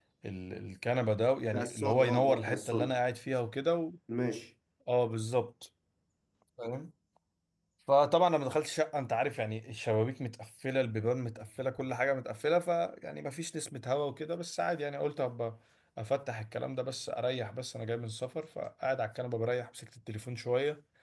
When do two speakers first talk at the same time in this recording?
1.5 s

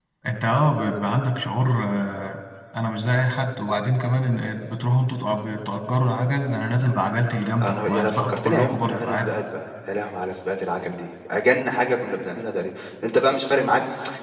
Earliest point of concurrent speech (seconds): 7.6 s

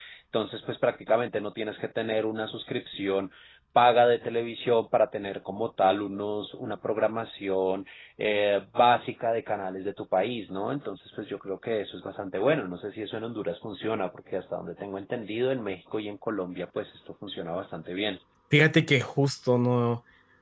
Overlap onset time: none

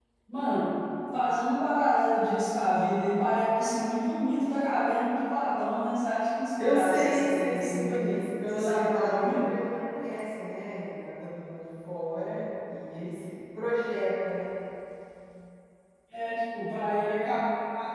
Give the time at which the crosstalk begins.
6.6 s

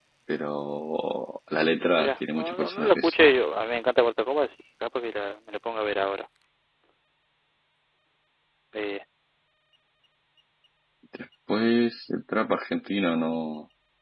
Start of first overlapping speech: 1.9 s

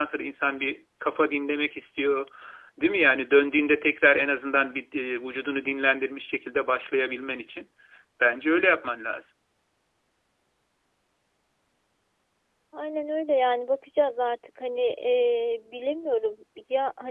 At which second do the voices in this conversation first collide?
none

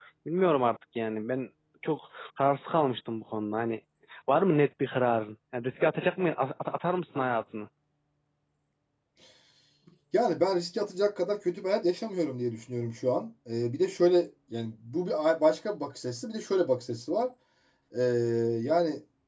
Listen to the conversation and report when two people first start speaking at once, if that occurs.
none

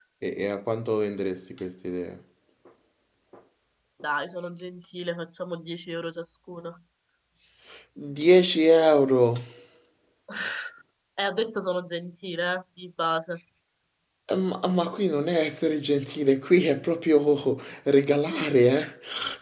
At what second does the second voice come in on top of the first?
none

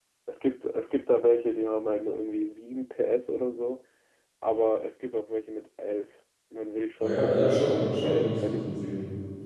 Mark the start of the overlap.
7.0 s

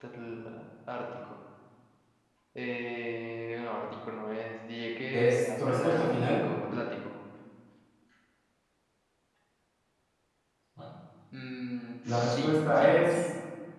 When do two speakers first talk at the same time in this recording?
5.1 s

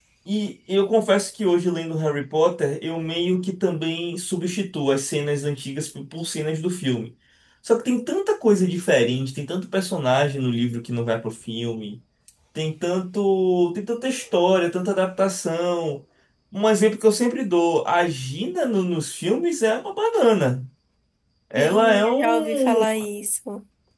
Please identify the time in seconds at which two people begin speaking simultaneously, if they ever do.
21.6 s

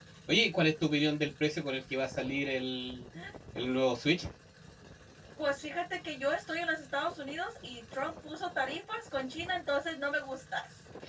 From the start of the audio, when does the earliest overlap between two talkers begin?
none

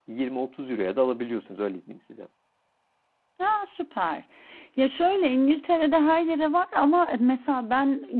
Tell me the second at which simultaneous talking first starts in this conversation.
none

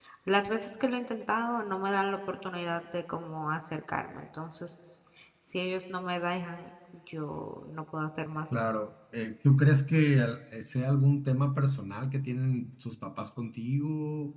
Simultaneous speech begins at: none

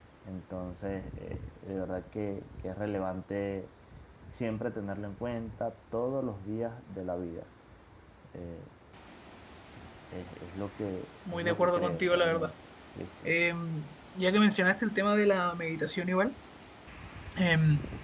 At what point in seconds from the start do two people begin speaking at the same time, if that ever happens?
11.3 s

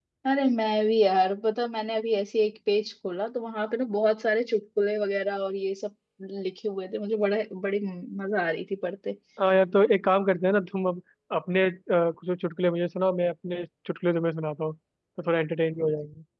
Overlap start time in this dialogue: none

